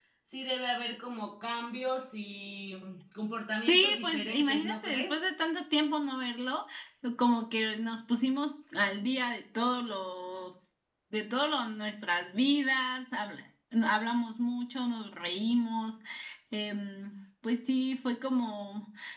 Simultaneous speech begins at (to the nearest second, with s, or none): 4 s